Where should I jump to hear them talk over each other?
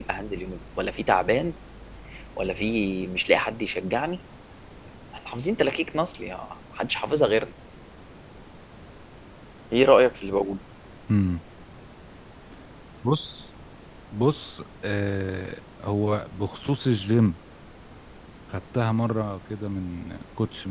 none

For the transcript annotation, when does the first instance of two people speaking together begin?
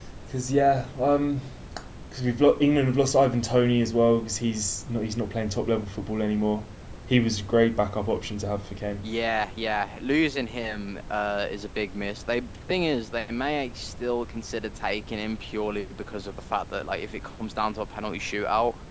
none

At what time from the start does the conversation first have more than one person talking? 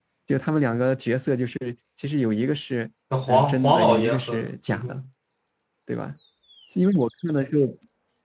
3.3 s

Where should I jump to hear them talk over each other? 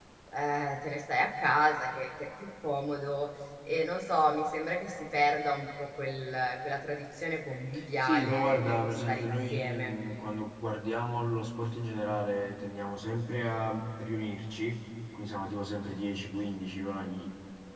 8.0 s

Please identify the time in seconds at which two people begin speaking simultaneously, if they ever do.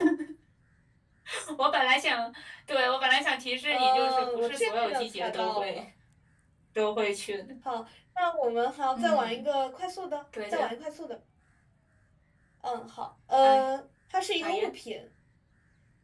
3.7 s

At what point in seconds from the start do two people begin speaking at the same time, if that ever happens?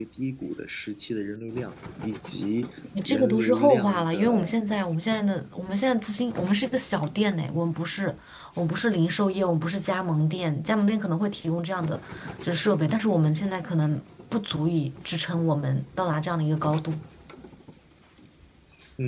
3.0 s

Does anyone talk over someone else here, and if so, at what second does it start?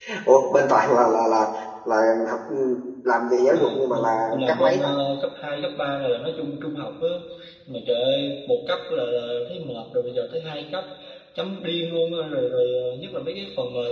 3.5 s

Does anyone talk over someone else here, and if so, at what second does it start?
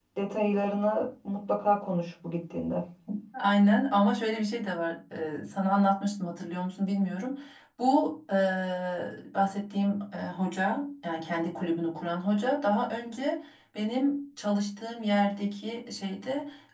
none

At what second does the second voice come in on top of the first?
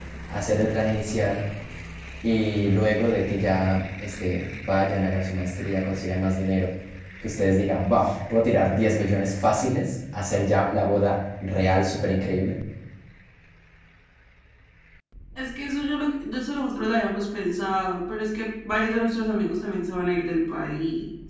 none

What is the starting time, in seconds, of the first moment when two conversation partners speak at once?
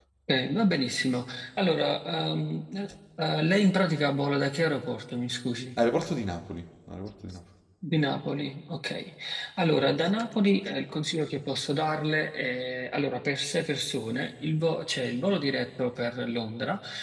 none

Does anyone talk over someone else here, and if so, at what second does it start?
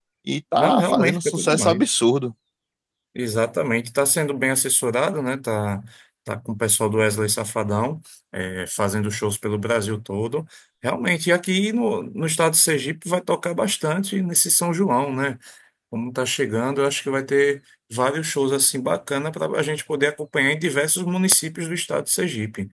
0.6 s

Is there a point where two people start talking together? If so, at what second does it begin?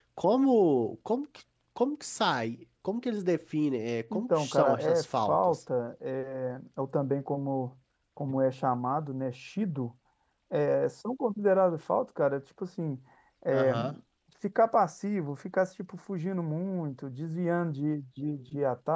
4.1 s

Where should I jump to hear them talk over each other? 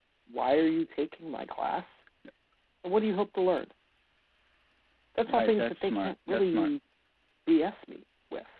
5.3 s

